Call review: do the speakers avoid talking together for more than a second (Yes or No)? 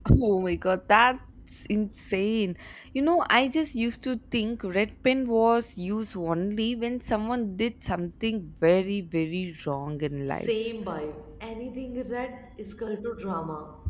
Yes